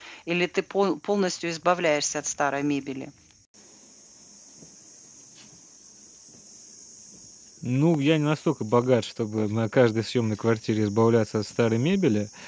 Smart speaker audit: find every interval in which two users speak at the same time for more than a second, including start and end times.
none

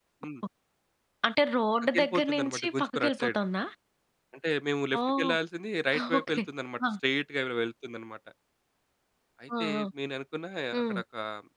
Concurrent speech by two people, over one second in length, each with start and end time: 1.9-3.4

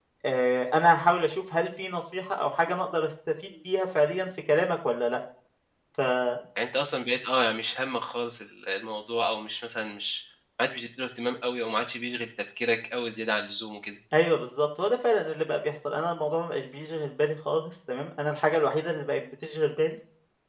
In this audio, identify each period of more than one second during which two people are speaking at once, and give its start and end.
none

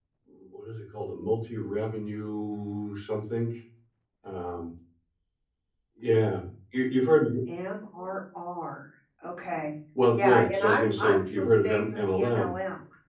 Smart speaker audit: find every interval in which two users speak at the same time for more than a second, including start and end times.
10.1-12.5

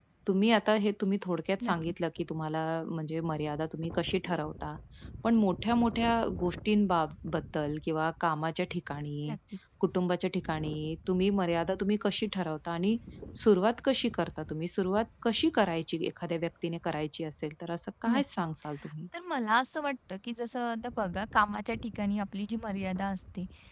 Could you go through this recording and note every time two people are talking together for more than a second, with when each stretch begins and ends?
none

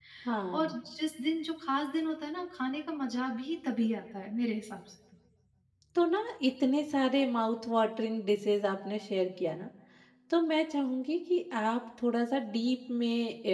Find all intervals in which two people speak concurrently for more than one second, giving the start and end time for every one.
none

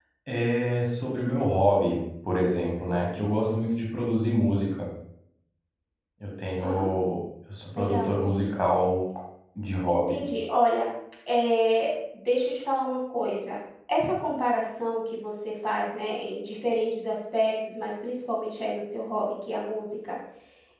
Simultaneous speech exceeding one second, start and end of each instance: none

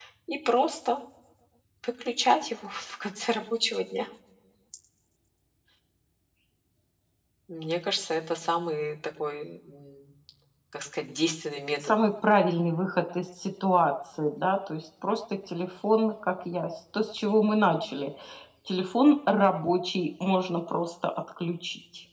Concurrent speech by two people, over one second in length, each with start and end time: none

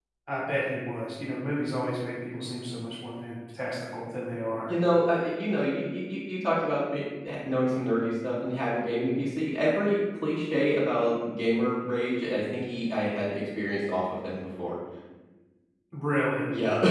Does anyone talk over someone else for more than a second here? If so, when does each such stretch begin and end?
none

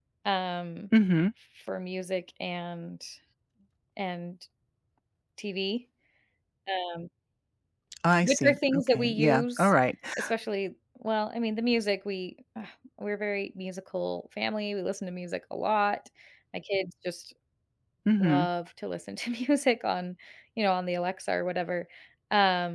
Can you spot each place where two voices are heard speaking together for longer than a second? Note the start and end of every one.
8.2-9.7

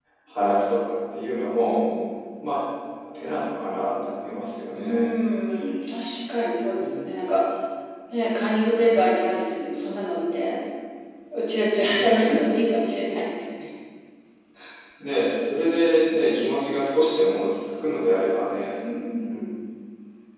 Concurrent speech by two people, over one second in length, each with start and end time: none

